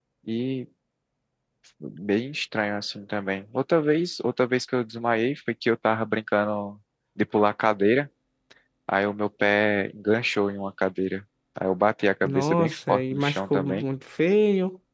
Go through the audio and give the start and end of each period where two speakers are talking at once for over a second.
12.2-13.9

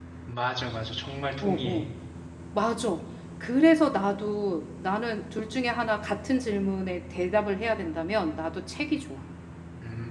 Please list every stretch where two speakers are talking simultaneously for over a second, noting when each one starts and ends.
none

